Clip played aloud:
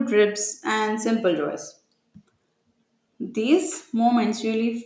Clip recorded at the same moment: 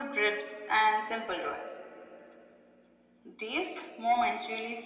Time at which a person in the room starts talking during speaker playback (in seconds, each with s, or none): none